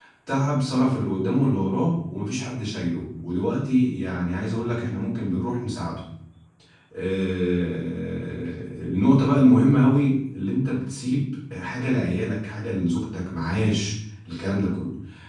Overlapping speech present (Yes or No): No